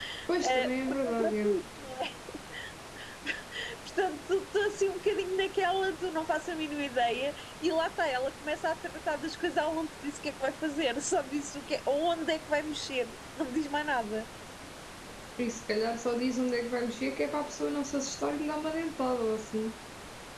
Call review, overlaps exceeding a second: present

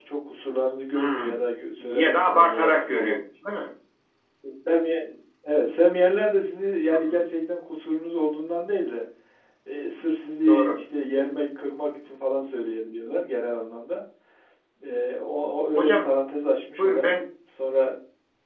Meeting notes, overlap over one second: present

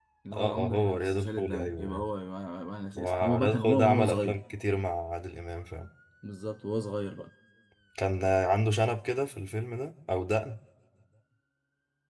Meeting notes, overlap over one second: present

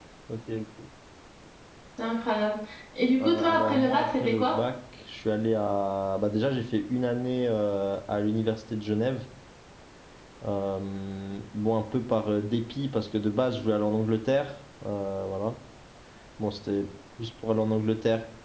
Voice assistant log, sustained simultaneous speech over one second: present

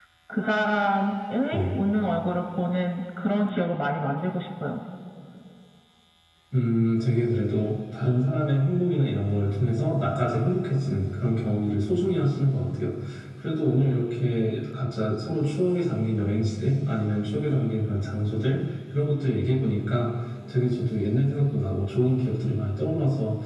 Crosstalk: none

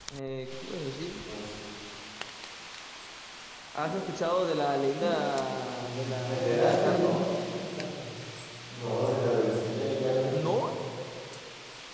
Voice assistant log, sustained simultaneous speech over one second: present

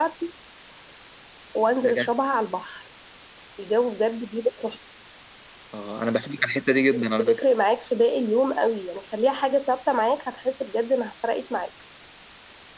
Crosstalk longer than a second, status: none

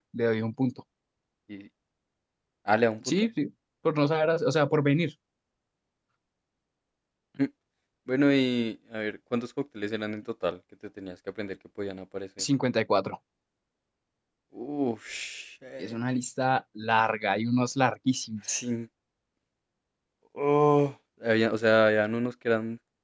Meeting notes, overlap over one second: none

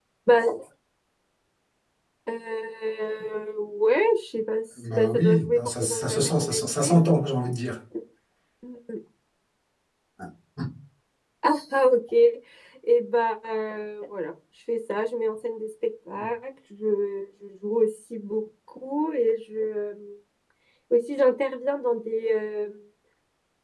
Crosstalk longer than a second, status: present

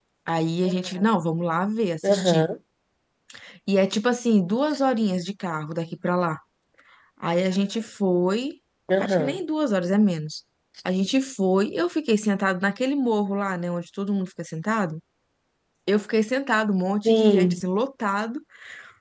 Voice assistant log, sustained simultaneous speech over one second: none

